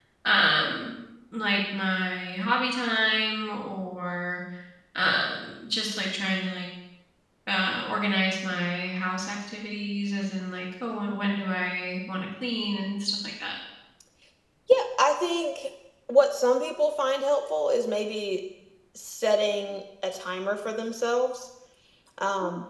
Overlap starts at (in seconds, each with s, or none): none